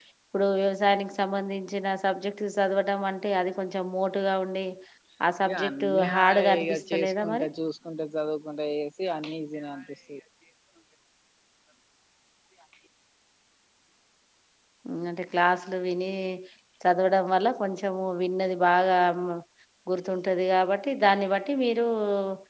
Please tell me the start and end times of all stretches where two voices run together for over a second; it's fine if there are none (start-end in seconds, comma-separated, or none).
5.5-7.5